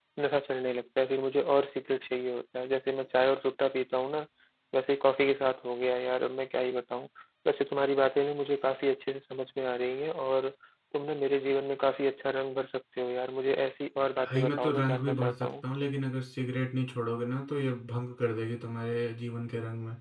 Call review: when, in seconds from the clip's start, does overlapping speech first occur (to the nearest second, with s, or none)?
14 s